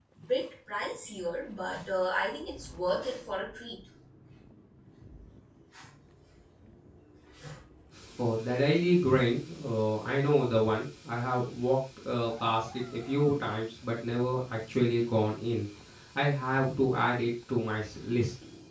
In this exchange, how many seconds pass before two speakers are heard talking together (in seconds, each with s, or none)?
none